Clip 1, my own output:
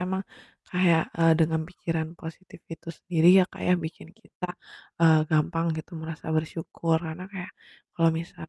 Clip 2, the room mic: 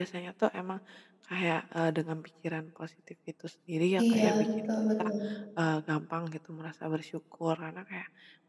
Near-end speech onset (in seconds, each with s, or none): 4.0 s